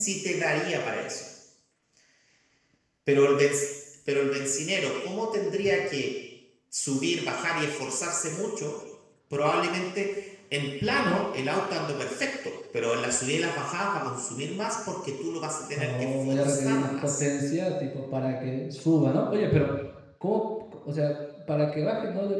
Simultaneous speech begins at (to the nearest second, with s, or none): 16 s